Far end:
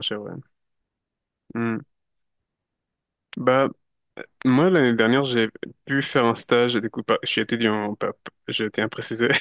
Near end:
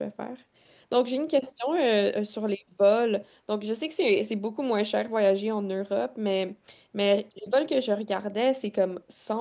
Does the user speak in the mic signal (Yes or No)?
Yes